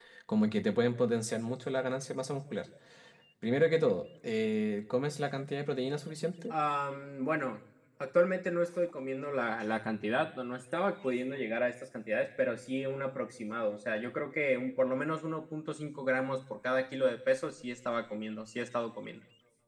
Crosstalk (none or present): none